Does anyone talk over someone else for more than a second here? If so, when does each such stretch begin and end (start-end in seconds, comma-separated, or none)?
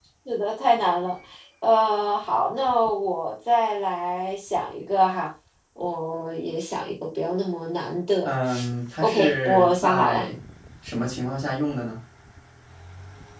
9.0-10.2